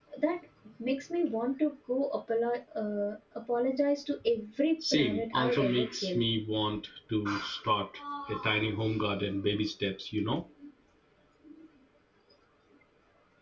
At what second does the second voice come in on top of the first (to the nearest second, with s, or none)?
5 s